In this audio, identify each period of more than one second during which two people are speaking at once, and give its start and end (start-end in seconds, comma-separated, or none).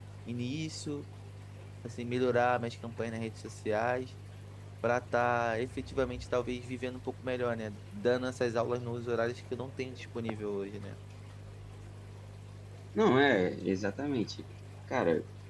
none